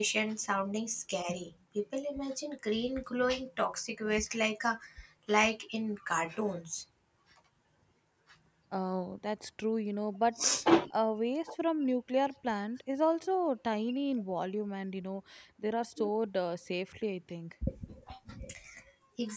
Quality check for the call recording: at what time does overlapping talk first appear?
none

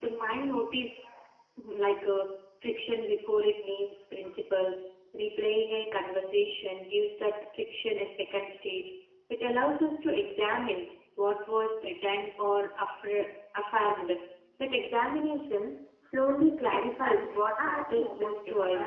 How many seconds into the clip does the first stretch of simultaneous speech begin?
16.6 s

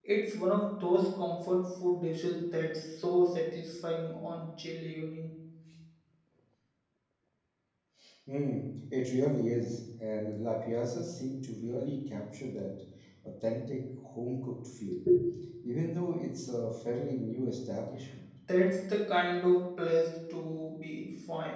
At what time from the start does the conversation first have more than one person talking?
none

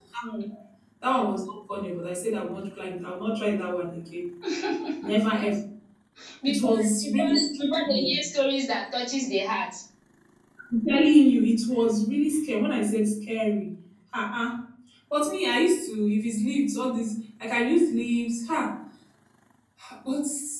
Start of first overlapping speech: 6.5 s

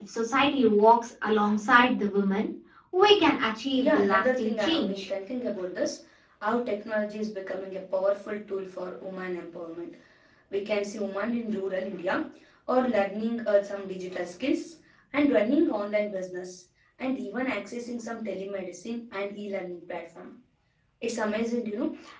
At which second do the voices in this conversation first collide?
3.8 s

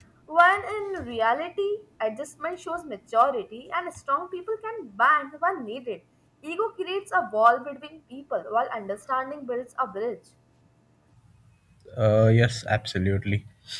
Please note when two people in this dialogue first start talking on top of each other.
none

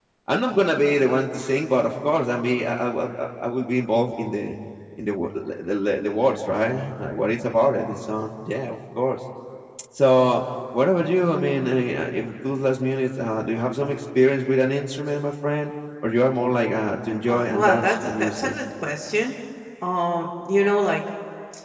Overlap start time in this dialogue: 17.3 s

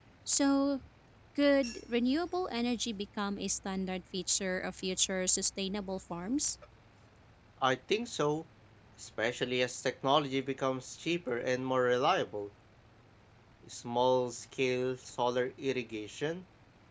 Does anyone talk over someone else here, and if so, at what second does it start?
none

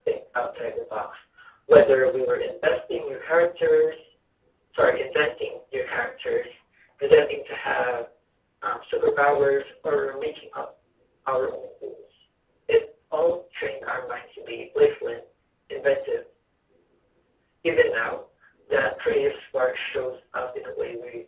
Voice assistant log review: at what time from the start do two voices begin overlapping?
none

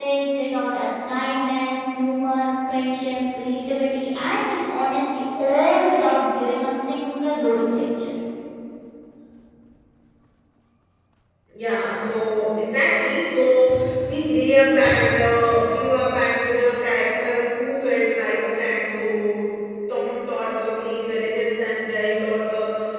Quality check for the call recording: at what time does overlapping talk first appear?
none

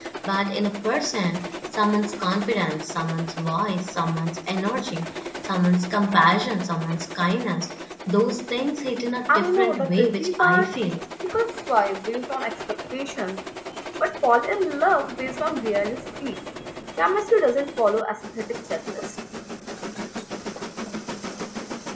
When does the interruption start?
9.3 s

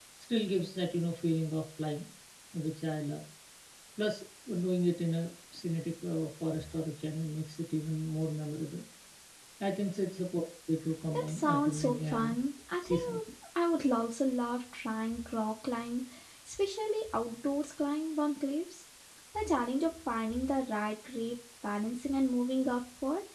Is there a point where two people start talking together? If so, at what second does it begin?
11.1 s

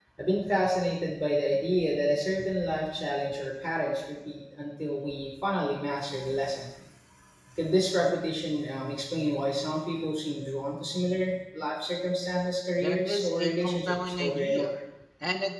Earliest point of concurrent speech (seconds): 12.8 s

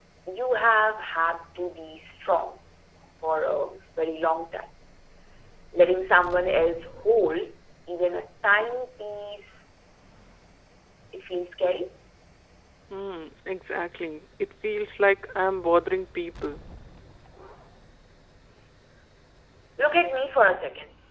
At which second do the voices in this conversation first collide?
none

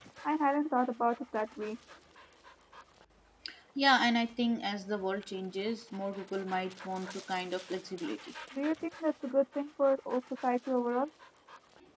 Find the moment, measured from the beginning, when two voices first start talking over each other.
none

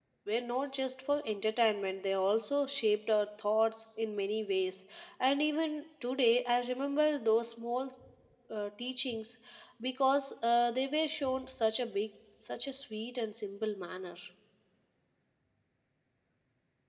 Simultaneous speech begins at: none

